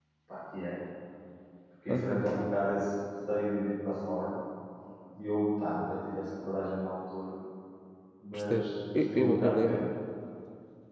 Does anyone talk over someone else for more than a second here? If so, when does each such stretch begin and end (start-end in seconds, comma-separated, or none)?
8.3-9.8